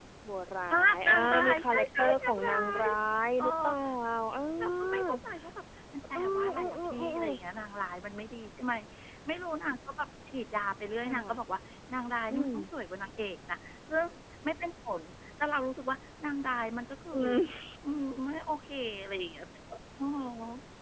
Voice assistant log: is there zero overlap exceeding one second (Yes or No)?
No